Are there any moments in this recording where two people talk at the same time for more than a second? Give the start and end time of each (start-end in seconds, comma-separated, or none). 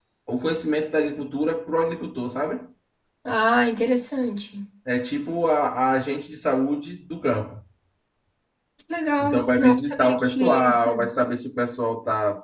9.2-10.9